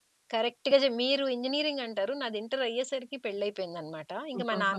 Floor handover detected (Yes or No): No